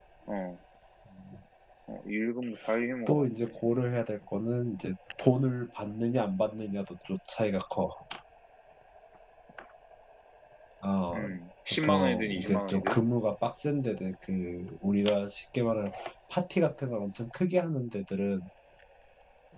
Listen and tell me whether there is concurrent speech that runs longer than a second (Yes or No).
Yes